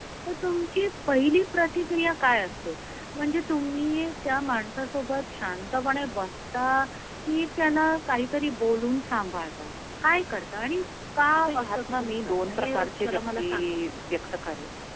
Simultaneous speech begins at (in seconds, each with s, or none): 11.5 s